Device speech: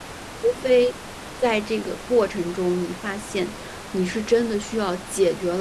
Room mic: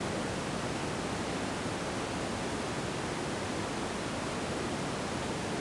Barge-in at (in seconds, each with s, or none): none